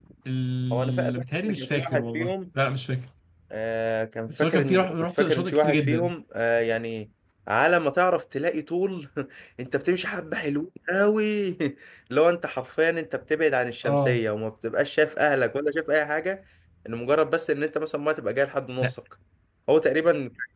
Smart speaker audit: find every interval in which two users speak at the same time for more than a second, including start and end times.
0.7-2.3, 4.3-6.1

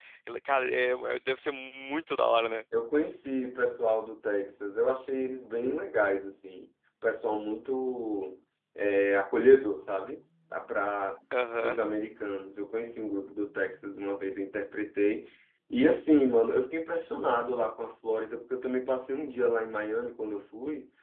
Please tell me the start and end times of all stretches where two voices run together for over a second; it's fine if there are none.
none

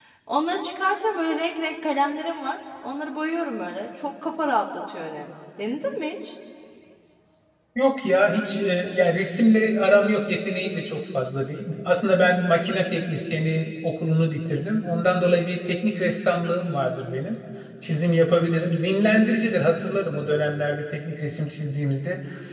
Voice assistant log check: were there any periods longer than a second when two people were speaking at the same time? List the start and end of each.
none

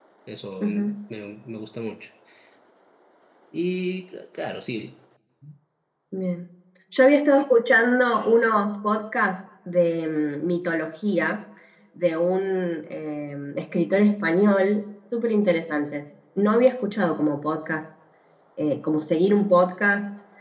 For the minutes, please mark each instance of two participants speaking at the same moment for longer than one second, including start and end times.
none

